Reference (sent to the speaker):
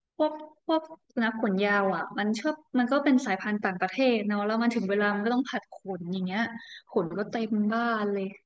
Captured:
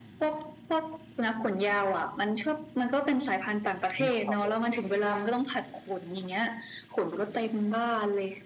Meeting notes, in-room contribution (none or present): present